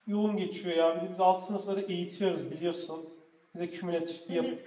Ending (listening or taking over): taking over